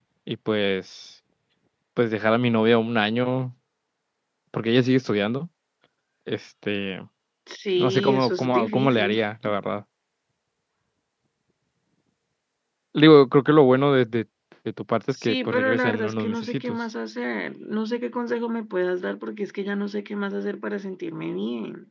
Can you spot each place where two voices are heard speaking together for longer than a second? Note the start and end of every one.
7.8-9.2, 15.2-16.8

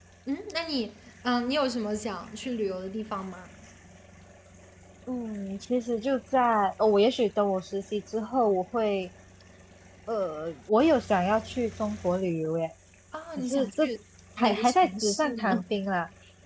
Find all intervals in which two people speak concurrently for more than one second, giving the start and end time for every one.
14.4-15.6

